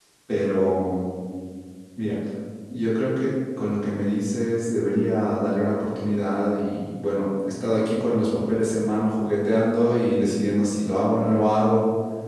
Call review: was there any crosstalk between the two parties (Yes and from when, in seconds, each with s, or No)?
No